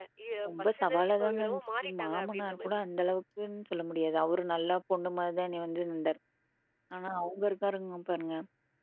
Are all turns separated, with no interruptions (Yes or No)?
No